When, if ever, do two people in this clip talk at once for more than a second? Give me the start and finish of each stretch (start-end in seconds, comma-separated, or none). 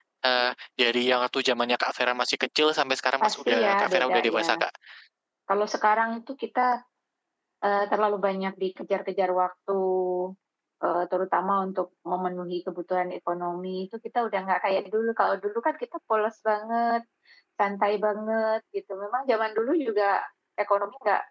3.2-4.6